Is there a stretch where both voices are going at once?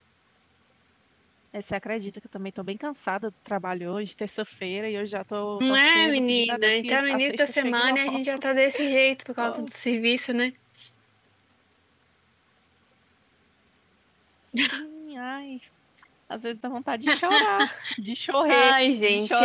Yes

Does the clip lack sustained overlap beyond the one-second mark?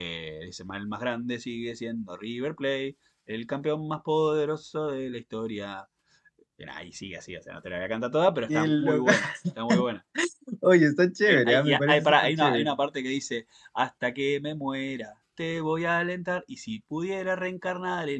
No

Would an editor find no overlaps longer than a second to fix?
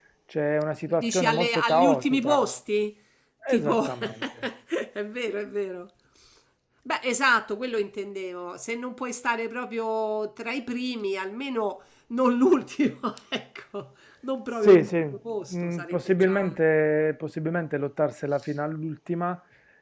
No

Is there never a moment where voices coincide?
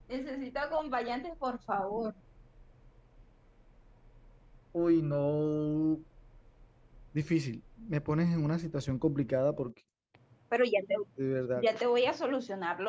Yes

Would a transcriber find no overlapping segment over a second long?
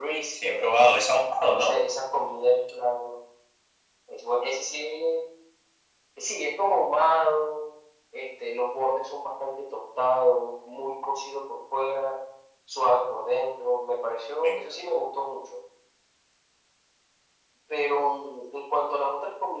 Yes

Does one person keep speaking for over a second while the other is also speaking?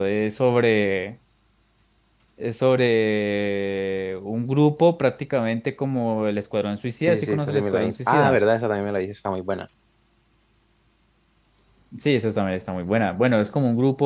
Yes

